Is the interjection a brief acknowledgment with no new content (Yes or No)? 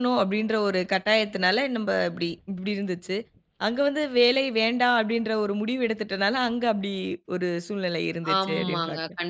No